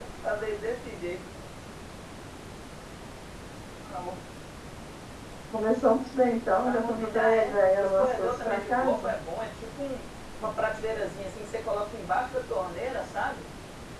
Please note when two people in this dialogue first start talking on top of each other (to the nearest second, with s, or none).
7 s